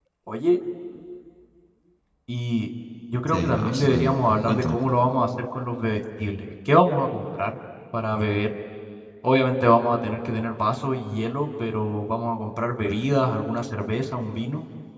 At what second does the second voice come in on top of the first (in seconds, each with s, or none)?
3.3 s